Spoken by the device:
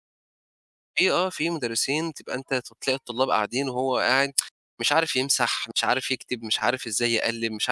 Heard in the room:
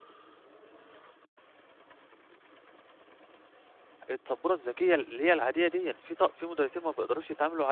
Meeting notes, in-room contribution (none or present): present